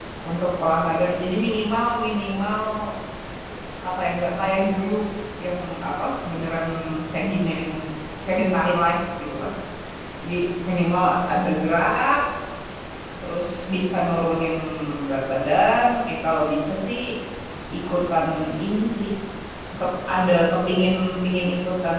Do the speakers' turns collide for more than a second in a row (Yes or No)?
No